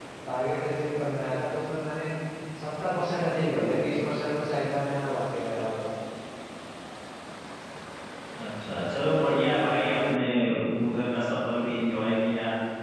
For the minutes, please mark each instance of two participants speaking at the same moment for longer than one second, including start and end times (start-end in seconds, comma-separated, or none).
none